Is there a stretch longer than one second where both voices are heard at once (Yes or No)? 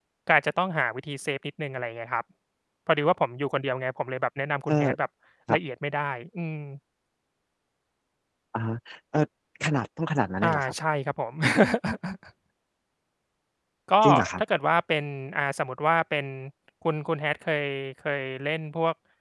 No